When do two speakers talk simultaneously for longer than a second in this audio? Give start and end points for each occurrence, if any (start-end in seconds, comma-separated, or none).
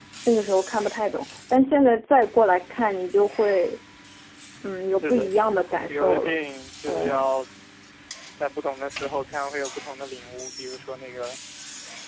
5.0-6.3